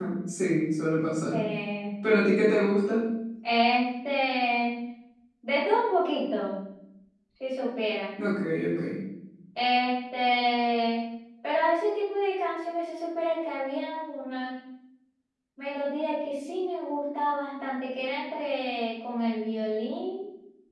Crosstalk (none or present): none